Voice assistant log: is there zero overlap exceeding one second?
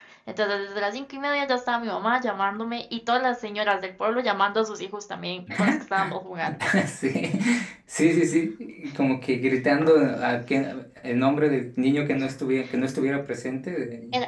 Yes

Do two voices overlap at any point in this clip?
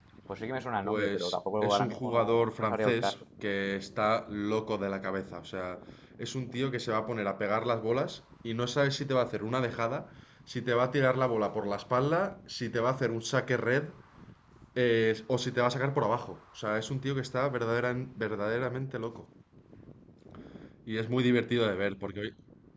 Yes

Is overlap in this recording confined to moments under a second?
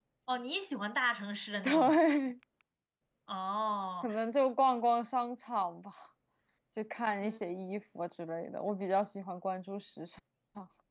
Yes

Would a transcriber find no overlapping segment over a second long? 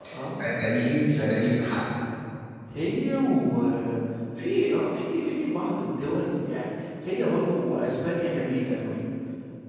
Yes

